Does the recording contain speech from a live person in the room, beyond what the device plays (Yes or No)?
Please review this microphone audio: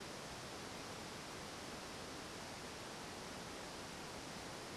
No